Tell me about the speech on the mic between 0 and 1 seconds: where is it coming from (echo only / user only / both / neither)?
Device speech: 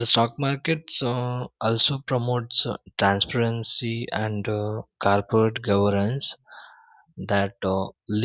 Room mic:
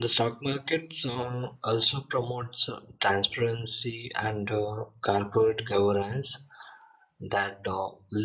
echo only